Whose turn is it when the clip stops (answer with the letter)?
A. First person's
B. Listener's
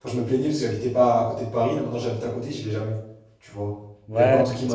B